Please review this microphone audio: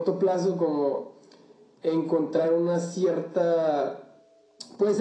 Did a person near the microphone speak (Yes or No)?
No